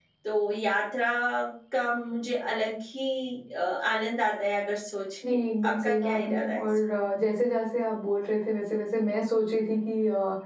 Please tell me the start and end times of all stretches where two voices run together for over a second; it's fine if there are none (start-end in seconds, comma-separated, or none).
5.3-6.7